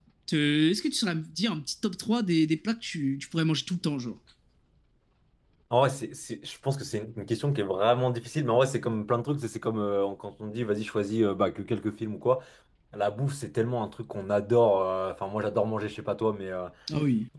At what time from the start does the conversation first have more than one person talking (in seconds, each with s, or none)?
none